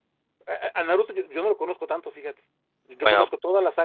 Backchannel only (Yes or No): Yes